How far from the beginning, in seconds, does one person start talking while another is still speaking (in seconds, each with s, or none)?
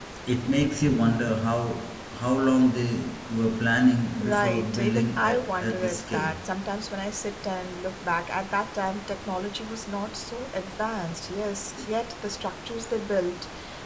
4.2 s